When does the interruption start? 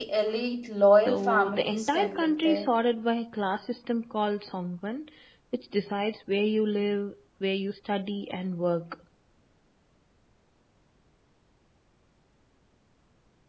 1.1 s

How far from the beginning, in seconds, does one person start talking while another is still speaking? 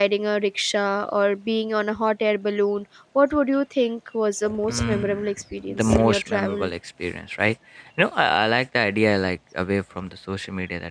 4.4 s

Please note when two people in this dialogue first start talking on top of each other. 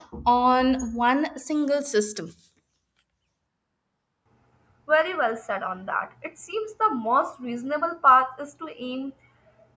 none

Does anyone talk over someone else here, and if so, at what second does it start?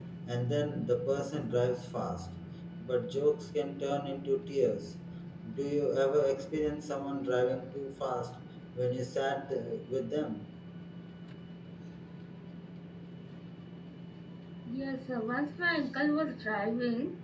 none

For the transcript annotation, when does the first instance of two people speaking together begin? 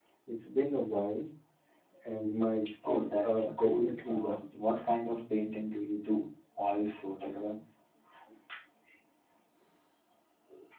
2.9 s

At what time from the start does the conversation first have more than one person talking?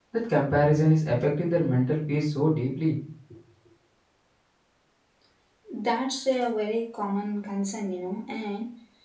none

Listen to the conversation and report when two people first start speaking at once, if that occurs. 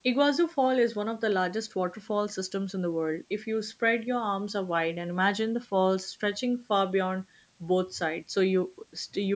none

